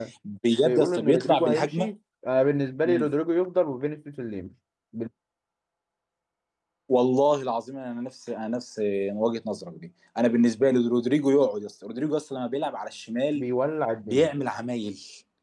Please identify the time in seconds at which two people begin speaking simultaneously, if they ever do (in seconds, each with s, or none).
0.6 s